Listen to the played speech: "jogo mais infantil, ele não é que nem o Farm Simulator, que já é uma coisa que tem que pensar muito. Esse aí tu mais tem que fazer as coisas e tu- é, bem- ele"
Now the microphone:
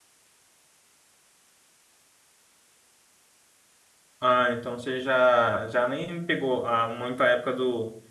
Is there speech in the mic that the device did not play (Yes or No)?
Yes